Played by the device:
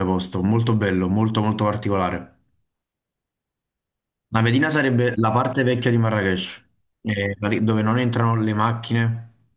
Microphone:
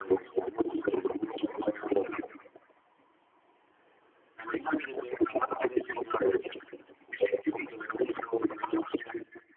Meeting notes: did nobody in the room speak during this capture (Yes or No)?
Yes